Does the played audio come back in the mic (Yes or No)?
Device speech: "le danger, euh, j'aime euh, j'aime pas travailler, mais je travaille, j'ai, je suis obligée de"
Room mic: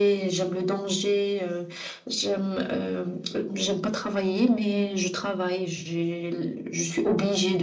Yes